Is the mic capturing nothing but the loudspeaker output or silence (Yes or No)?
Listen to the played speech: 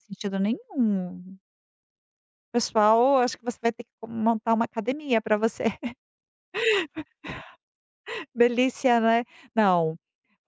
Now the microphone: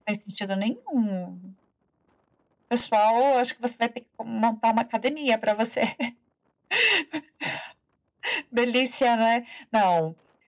Yes